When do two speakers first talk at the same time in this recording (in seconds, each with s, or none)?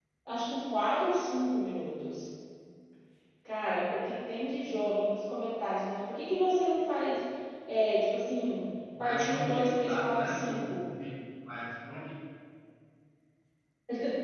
8.9 s